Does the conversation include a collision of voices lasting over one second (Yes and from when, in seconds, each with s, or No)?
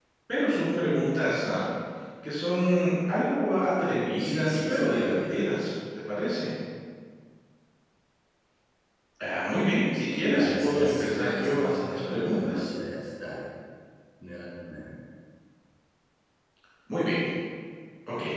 Yes, from 4.2 s